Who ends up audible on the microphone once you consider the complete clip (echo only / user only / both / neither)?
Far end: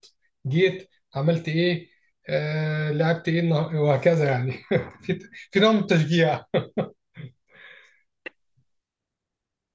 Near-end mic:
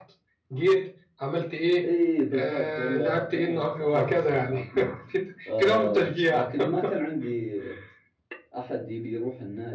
both